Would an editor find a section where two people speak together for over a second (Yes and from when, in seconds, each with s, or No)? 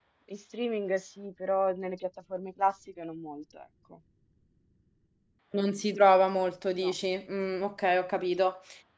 No